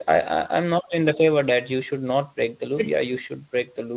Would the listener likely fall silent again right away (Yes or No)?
Yes